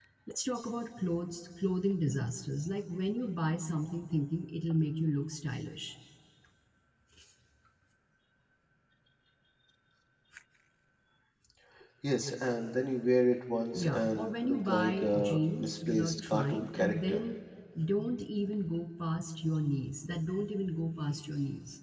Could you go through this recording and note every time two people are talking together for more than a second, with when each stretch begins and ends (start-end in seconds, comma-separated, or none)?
13.7-17.2